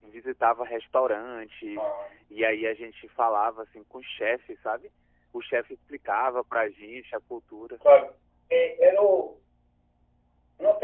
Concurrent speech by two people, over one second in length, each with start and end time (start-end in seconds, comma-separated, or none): none